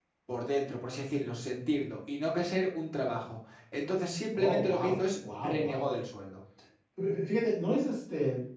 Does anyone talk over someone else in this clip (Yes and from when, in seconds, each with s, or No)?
Yes, from 4.3 s